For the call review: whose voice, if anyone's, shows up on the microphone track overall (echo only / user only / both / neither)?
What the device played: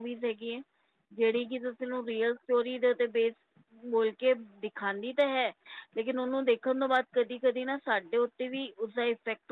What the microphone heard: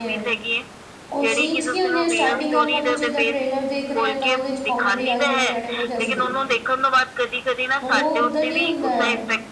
both